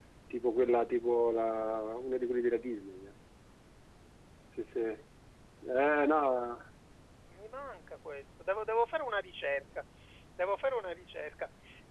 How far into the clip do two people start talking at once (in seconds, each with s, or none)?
none